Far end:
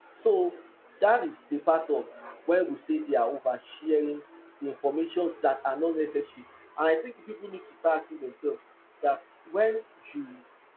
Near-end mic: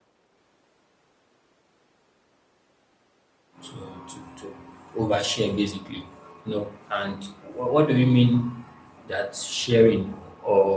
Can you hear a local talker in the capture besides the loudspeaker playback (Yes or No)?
Yes